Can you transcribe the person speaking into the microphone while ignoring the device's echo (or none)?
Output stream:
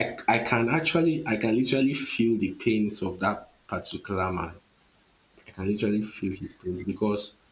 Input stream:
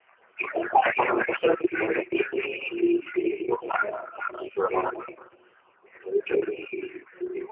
none